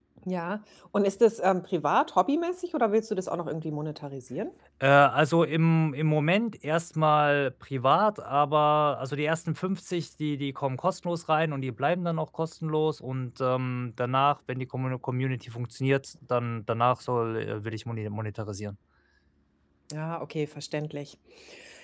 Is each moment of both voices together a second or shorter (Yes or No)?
Yes